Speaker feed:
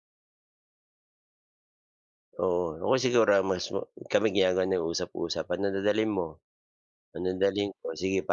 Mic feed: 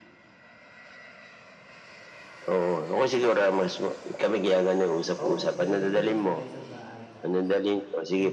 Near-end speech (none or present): present